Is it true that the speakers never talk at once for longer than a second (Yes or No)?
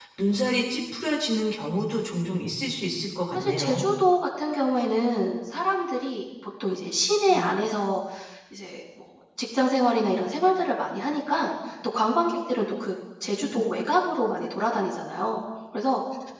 Yes